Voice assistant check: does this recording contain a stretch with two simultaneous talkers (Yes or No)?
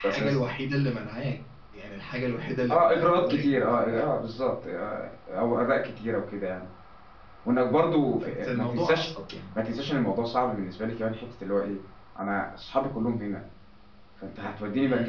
Yes